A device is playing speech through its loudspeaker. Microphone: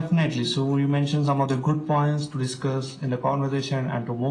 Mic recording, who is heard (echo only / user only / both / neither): echo only